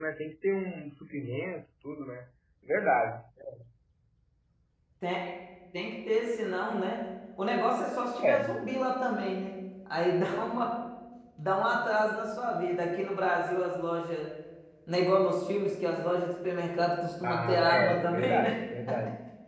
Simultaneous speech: Yes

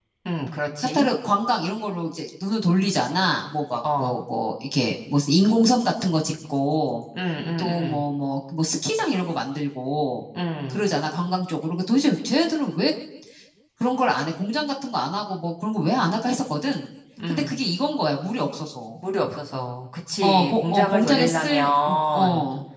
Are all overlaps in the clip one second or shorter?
No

